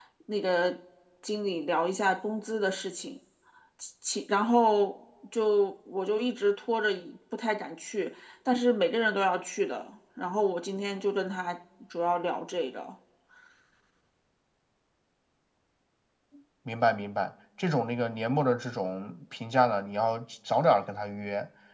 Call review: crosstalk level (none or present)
none